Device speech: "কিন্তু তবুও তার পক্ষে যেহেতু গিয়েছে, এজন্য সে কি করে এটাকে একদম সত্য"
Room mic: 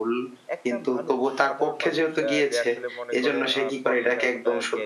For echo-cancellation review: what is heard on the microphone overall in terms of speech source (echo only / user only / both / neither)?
both